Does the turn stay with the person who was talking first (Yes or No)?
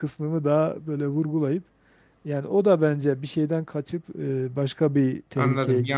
No